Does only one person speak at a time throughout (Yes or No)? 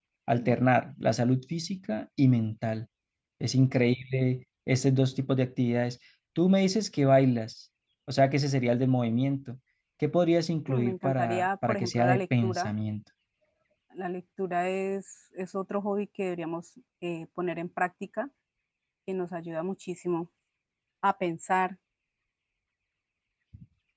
No